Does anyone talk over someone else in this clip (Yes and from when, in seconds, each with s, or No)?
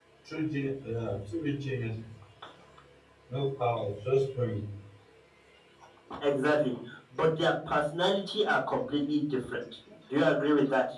No